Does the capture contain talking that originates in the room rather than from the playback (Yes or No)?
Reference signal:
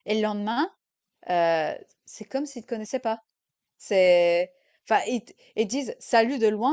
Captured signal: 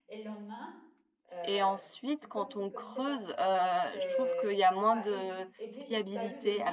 Yes